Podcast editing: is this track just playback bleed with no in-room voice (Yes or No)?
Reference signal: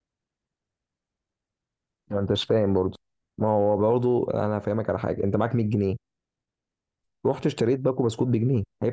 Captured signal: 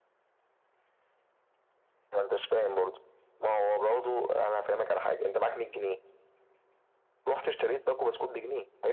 Yes